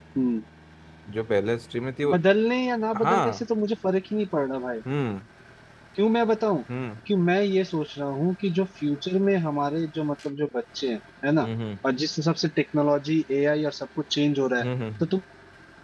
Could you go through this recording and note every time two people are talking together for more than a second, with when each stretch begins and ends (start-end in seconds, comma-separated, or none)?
none